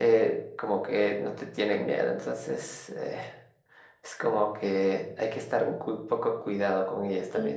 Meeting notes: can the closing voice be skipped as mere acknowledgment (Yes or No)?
Yes